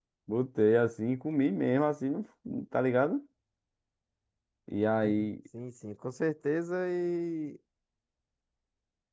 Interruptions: none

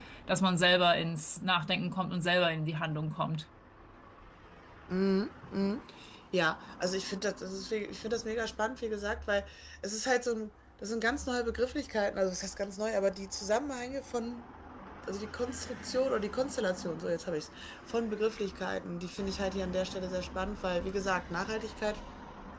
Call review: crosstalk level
none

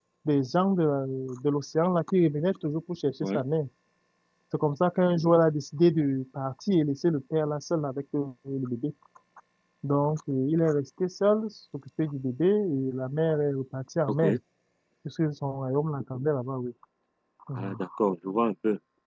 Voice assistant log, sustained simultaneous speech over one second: none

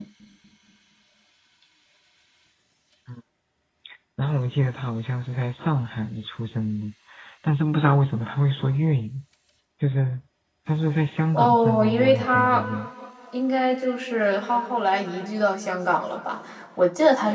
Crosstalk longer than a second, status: present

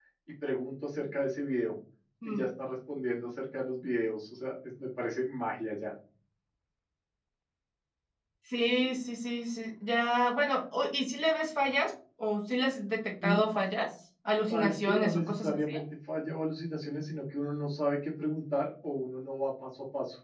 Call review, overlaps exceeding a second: present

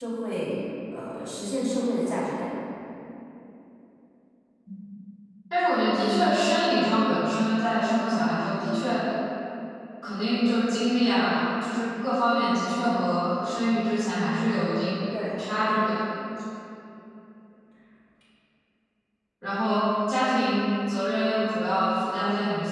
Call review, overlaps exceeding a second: none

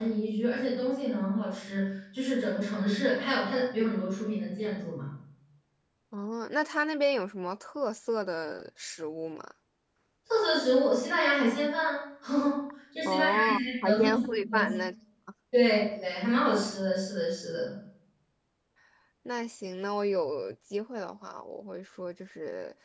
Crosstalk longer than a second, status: present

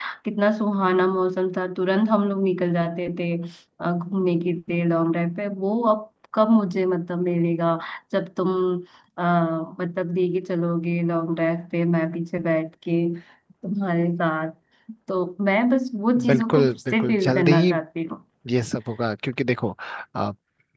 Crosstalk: present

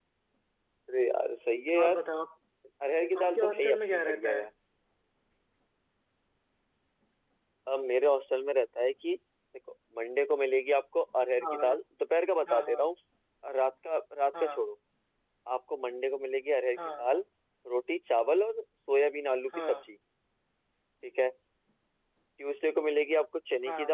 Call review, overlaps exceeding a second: present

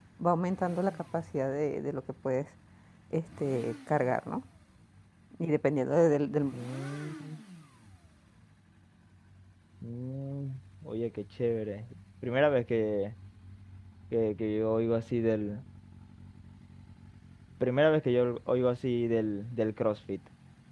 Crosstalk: none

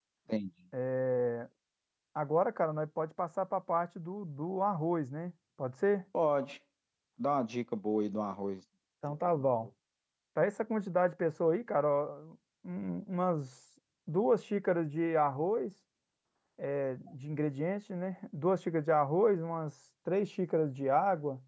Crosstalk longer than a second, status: none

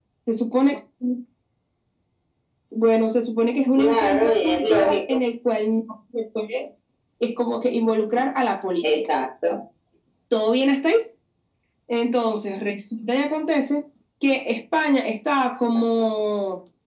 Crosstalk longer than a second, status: present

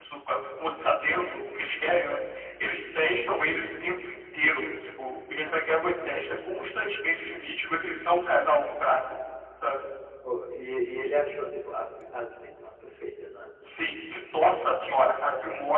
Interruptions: none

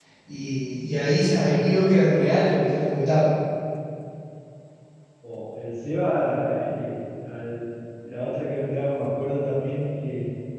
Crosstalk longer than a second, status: none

